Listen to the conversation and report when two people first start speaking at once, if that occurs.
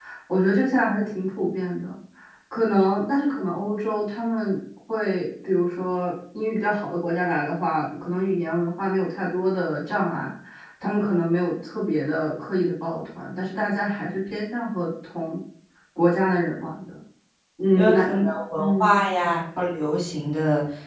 17.7 s

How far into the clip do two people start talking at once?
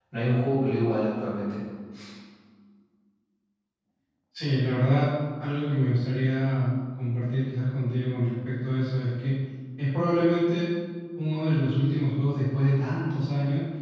none

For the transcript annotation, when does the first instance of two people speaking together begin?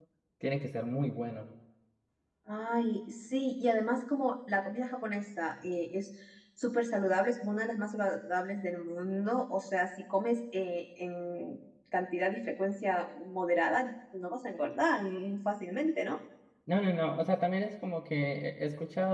none

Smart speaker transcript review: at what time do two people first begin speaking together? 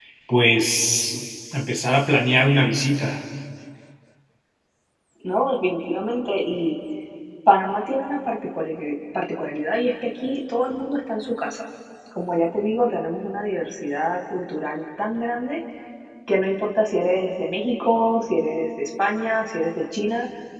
none

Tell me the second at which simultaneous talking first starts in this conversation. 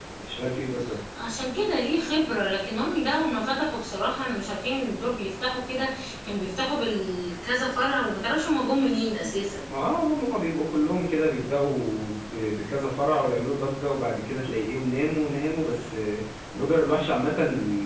none

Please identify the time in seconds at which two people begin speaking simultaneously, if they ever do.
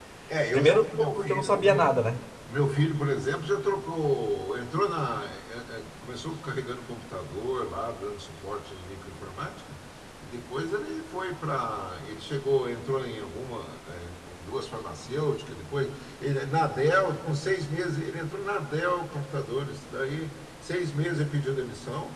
0.5 s

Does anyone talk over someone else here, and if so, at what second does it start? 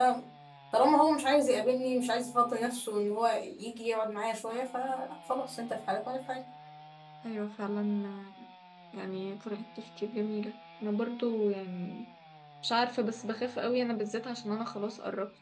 none

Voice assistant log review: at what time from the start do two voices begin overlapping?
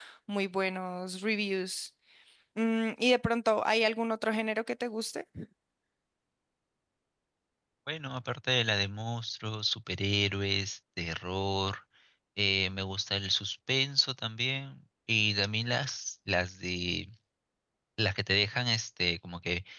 none

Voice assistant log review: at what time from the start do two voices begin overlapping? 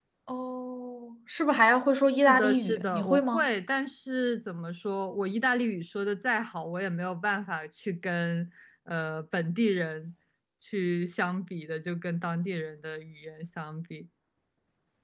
2.3 s

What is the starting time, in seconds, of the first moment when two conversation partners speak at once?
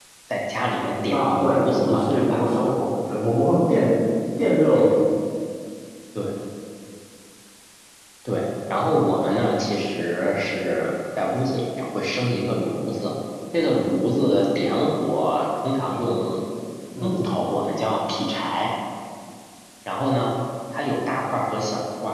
1.1 s

